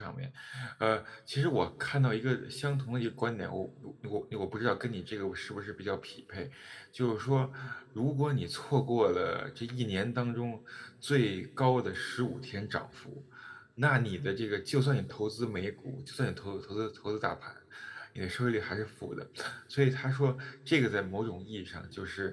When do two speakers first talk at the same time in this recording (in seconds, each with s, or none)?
none